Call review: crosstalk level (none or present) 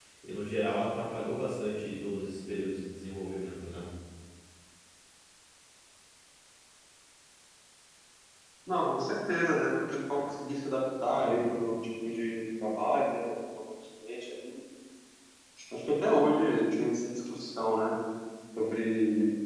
none